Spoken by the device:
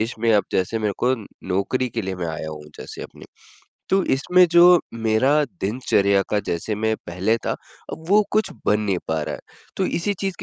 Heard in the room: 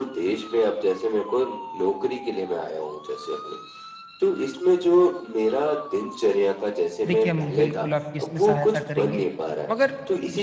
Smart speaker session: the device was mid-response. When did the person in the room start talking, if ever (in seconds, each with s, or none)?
7.1 s